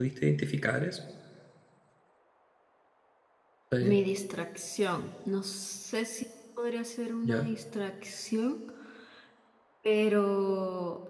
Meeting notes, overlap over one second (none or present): none